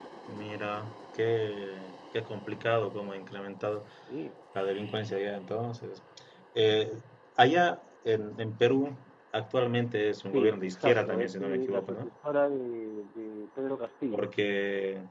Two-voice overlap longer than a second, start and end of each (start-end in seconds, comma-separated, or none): 10.2-12.1